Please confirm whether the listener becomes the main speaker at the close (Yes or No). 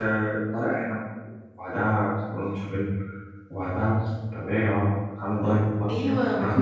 Yes